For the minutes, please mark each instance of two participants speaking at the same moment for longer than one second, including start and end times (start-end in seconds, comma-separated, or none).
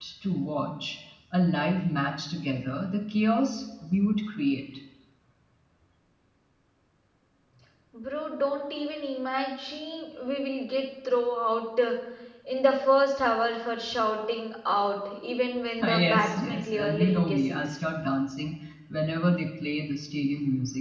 15.8-17.8